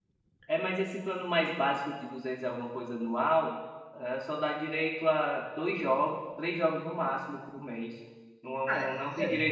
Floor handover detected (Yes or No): No